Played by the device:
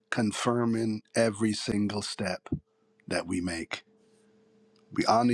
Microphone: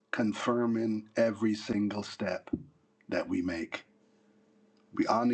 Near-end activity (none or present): none